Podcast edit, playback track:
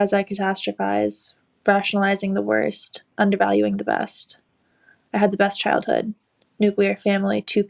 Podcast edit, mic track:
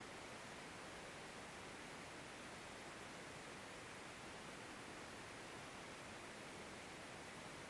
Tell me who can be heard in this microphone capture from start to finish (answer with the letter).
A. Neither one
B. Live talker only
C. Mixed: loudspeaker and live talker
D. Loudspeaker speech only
A